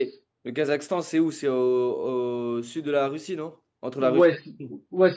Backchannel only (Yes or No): No